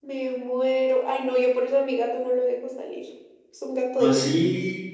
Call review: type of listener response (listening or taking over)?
taking over